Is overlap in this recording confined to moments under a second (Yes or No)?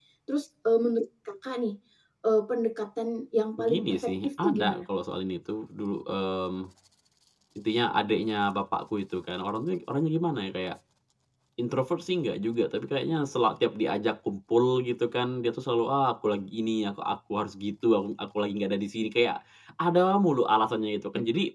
No